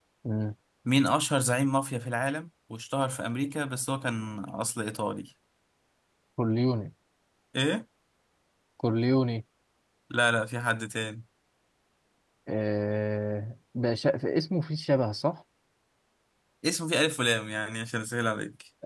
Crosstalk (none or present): none